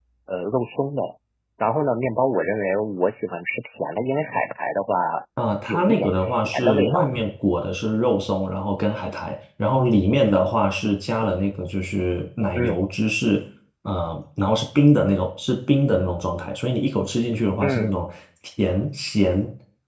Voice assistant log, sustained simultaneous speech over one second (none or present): present